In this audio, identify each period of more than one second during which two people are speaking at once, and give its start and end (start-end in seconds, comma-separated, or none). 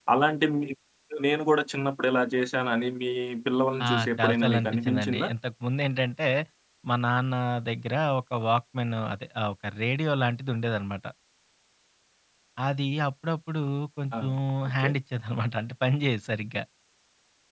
3.9-5.3